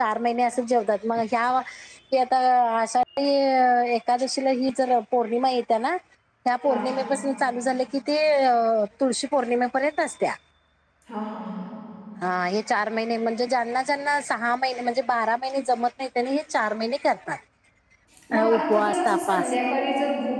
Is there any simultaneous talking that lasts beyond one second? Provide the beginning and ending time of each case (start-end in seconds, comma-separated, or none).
18.3-19.6